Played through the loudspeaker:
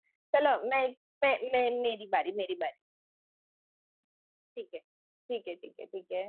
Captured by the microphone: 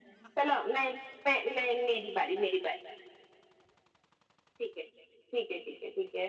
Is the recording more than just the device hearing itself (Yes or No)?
No